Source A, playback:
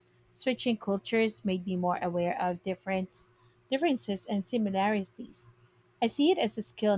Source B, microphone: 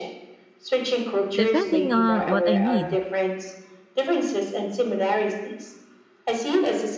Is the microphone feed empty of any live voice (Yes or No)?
No